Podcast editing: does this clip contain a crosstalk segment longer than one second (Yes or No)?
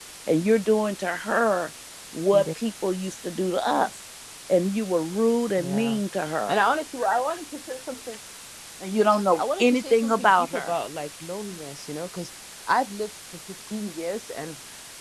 Yes